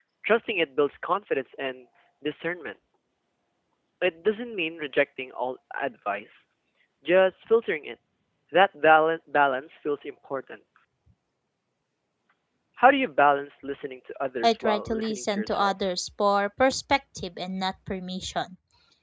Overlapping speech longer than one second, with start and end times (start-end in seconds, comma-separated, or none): 14.4-15.7